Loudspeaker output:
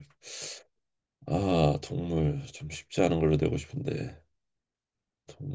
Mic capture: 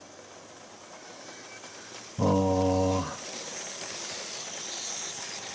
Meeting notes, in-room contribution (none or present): present